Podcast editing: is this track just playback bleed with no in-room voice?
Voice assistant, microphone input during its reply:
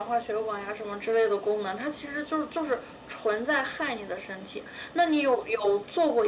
Yes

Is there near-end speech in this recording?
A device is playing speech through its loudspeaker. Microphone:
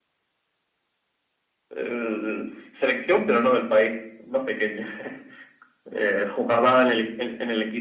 No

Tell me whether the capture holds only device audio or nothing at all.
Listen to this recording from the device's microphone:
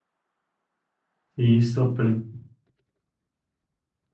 No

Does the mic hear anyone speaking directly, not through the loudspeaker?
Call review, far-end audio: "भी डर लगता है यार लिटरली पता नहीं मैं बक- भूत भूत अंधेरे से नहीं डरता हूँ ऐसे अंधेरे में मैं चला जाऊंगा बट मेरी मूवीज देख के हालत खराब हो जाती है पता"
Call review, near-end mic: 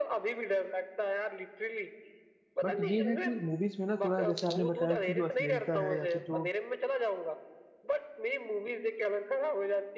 Yes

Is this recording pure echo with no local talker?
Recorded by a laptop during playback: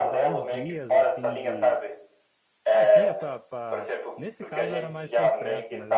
No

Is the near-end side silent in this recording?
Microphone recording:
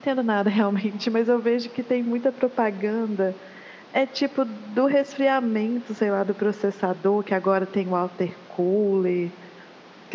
No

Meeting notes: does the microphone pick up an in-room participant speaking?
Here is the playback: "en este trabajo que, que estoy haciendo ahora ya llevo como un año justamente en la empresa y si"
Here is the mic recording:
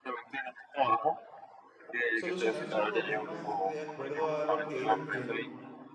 Yes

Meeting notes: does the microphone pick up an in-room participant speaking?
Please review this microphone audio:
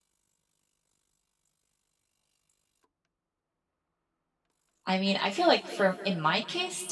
Yes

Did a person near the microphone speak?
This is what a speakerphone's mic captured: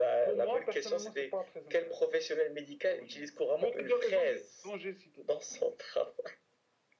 No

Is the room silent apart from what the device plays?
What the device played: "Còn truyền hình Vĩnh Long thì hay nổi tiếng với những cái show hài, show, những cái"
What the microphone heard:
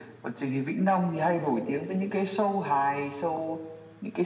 Yes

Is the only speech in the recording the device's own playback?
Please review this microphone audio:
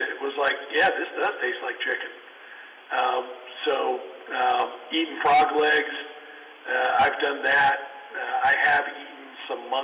Yes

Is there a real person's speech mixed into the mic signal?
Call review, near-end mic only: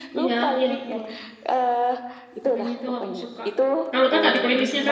Yes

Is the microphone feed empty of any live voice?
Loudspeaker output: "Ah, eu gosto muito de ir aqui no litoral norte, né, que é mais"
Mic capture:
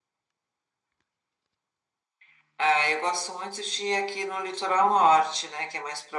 Yes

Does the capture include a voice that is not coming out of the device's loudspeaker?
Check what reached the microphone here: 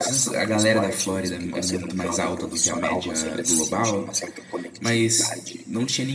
Yes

